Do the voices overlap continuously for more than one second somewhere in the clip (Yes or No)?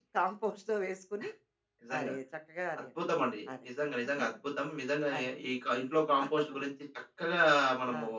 No